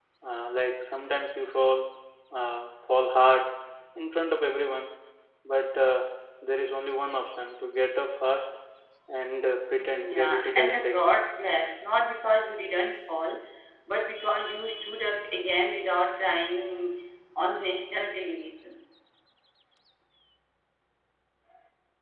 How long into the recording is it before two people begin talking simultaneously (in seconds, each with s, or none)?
9.8 s